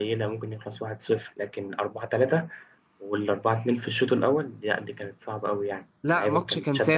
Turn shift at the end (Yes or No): Yes